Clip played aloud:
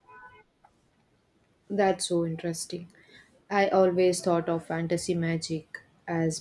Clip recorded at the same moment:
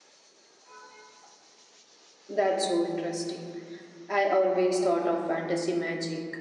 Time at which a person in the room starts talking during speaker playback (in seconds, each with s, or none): none